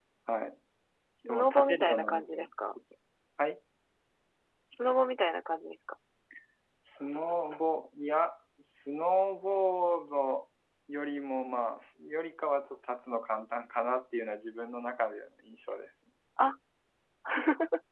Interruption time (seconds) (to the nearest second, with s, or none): 1 s